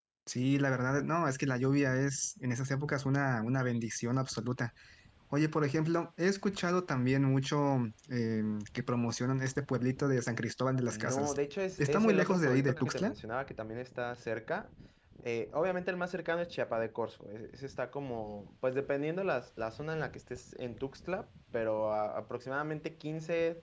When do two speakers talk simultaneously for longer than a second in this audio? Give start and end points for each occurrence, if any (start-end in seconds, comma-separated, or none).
11.8-13.1